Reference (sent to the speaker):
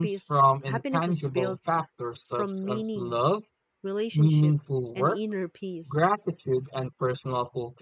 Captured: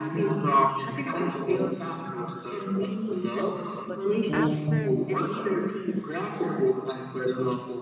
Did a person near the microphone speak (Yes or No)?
Yes